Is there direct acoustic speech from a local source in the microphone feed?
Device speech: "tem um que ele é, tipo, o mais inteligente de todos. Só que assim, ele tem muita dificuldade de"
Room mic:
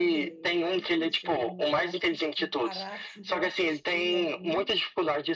Yes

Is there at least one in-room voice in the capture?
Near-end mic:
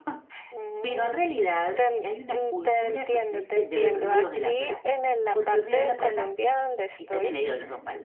Yes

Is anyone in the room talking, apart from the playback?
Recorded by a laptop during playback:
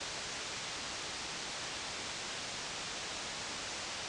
No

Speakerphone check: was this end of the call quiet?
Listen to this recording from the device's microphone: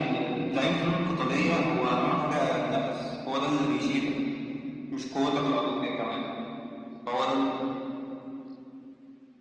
Yes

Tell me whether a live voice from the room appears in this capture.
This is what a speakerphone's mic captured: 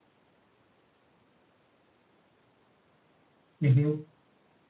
Yes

